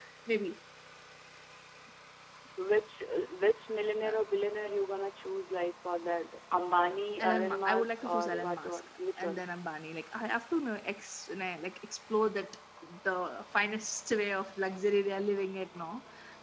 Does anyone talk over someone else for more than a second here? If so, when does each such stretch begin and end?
7.2-9.4

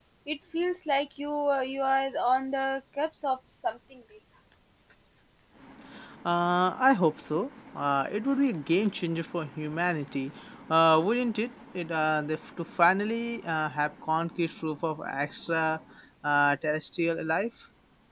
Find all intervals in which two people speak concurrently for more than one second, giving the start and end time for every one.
none

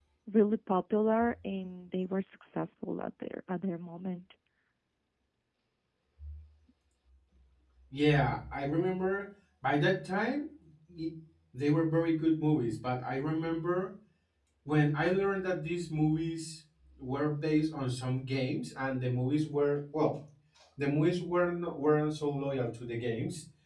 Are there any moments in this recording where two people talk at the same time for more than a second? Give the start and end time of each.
none

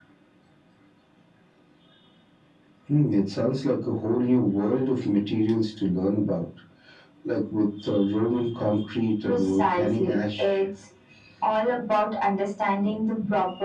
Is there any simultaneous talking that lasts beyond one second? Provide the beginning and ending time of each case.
9.2-10.6

